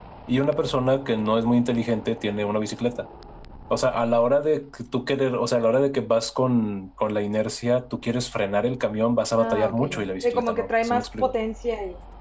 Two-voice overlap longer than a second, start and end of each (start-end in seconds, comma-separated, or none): 9.4-11.3